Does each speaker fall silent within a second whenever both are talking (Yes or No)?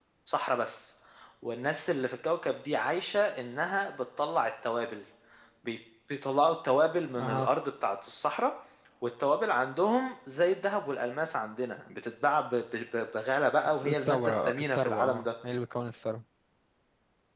No